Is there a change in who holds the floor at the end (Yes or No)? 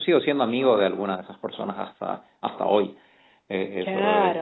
Yes